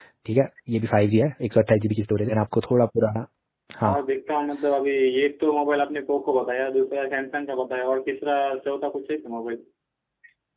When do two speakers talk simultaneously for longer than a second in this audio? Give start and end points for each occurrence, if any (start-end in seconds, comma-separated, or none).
none